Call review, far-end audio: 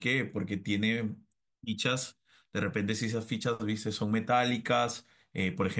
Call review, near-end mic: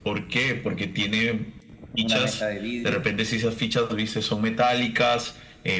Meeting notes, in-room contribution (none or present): present